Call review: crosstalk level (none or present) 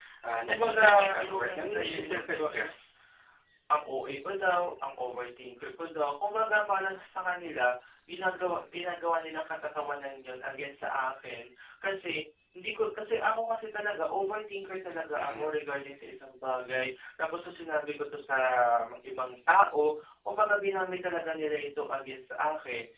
present